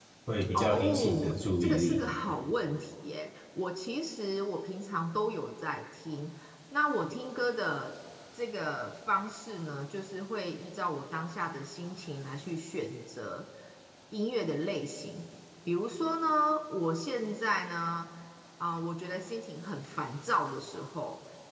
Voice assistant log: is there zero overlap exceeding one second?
No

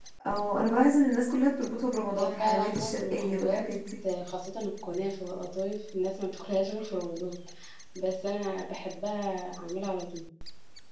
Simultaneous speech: Yes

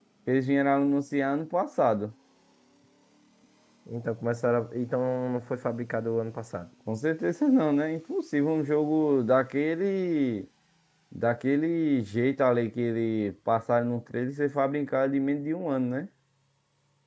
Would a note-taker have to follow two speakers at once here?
No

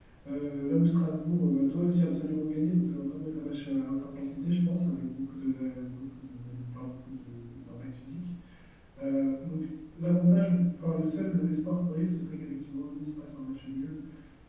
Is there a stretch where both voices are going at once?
No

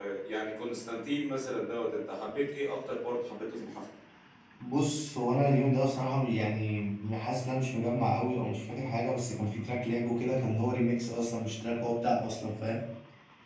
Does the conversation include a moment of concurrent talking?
No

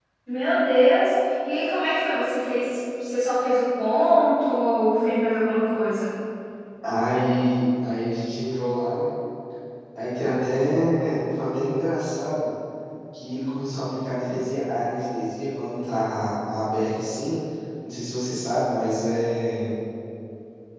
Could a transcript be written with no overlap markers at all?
Yes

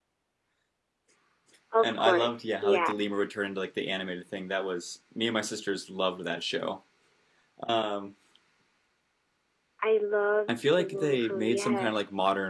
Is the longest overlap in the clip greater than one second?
Yes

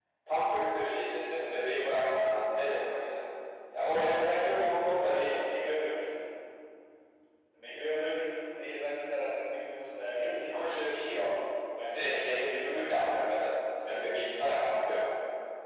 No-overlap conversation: No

